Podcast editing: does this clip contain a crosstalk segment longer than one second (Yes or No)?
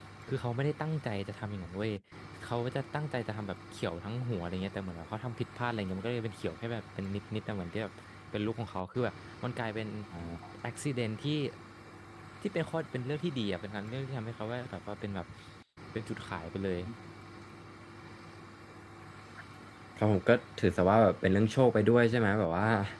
No